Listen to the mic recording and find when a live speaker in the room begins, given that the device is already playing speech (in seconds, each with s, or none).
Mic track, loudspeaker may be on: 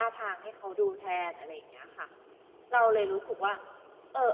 none